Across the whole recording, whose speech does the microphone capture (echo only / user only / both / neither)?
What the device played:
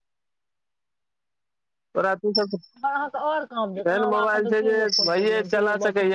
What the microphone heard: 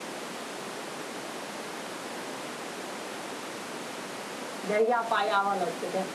user only